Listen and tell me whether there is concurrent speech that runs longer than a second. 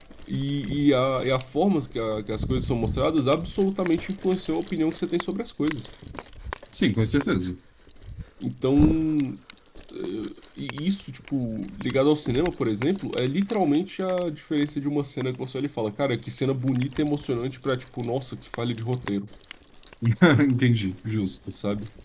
No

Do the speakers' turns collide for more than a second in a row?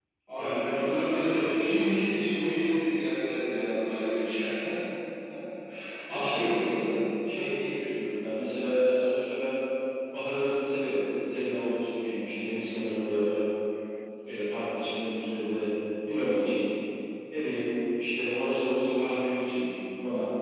Yes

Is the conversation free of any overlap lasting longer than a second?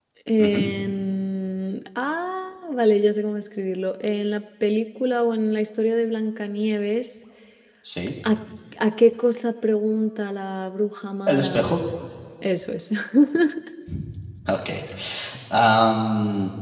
Yes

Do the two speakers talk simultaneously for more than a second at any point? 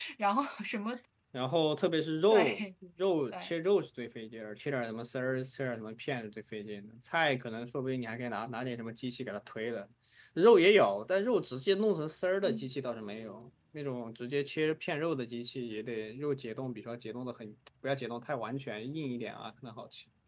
No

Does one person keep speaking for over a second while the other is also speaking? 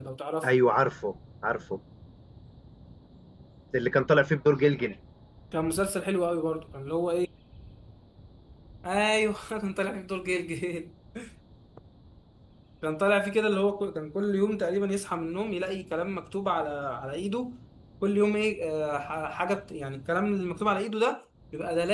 No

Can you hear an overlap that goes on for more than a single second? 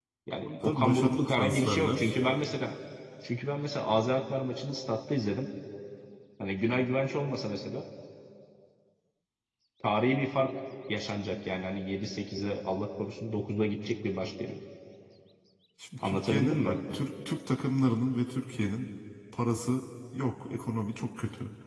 Yes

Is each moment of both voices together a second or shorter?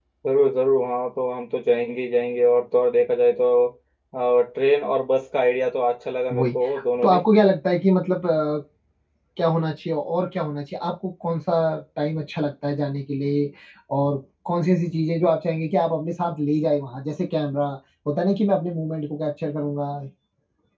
Yes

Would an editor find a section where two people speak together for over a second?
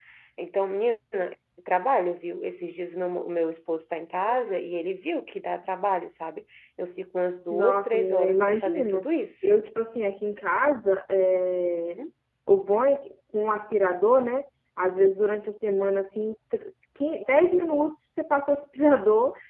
Yes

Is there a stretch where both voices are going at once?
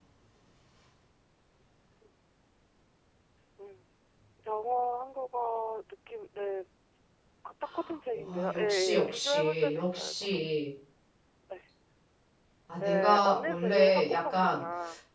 Yes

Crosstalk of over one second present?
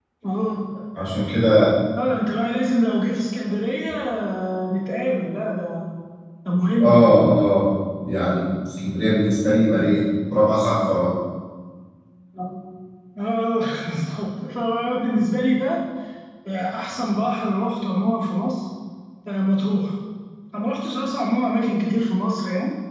No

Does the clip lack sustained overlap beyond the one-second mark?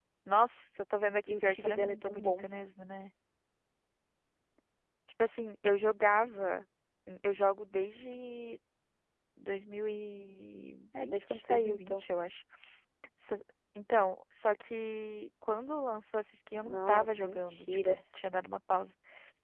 No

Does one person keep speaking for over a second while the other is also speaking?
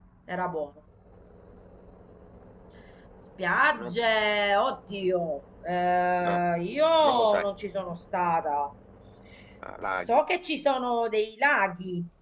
No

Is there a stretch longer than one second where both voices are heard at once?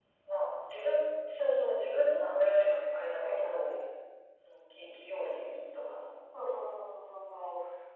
No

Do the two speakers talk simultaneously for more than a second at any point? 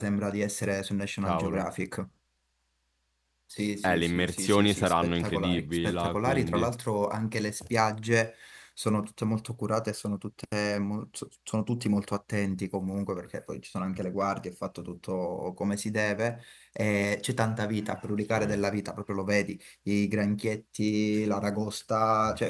Yes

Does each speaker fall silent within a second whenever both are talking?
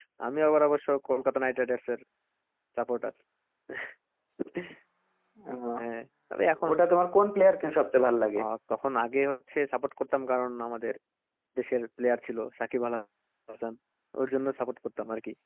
Yes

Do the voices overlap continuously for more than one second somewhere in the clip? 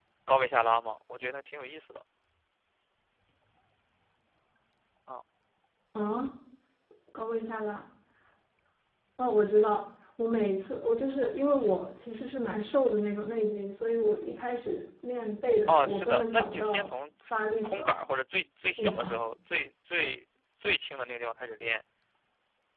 Yes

